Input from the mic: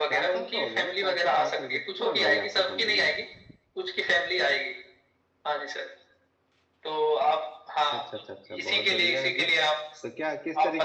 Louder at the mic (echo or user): echo